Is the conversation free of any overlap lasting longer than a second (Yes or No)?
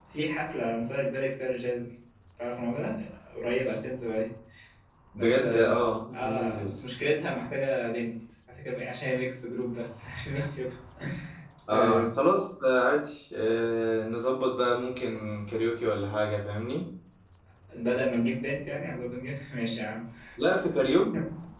No